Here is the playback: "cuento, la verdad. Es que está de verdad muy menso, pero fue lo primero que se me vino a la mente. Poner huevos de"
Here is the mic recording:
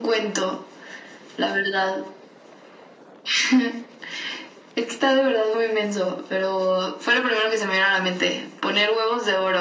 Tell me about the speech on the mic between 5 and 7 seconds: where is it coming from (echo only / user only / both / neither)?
echo only